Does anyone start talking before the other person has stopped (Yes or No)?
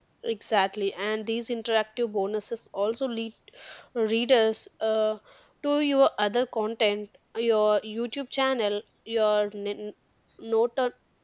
No